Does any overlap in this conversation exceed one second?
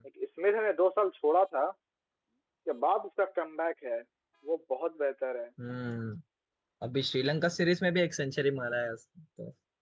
No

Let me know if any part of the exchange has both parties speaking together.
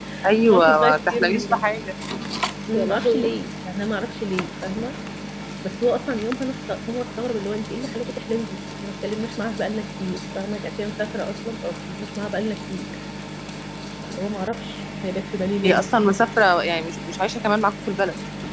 Yes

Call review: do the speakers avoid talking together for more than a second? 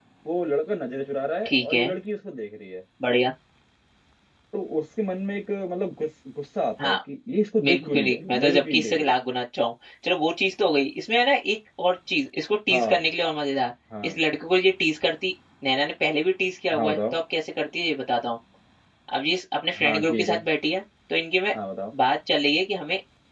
No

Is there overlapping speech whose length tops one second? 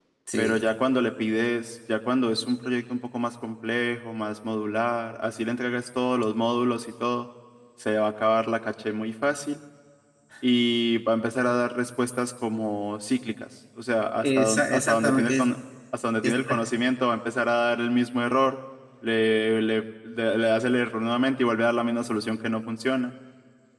Yes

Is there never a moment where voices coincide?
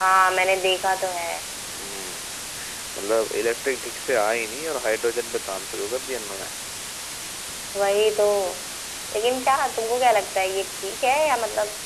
Yes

